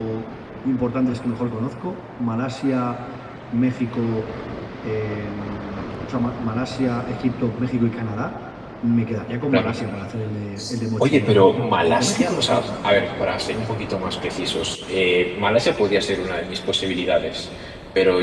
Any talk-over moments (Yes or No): Yes